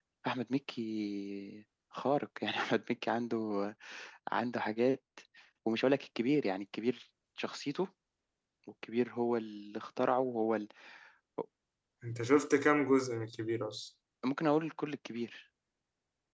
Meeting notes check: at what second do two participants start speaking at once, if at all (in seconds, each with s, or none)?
none